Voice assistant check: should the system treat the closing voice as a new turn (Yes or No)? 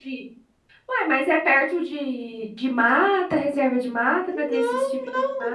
Yes